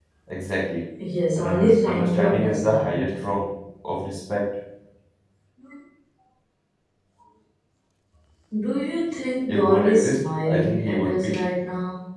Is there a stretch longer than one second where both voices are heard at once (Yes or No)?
Yes